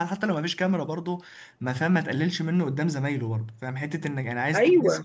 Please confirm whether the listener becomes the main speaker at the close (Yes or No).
No